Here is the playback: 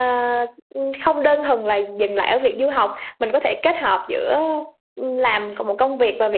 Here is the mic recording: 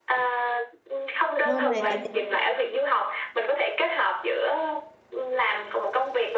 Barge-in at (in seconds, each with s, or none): 1.4 s